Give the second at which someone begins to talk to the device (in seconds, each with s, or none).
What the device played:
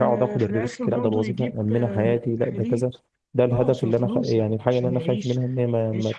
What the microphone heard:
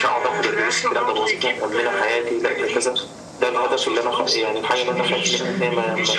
4.9 s